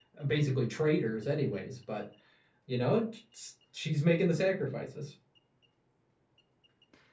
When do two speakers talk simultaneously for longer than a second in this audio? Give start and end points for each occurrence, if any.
none

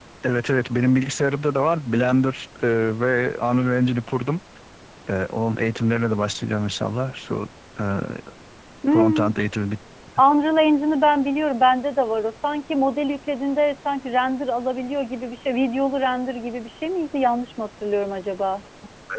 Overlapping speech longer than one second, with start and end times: none

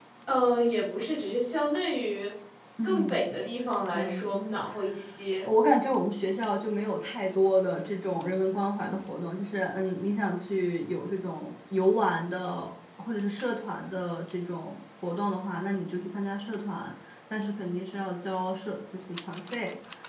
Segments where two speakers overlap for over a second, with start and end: none

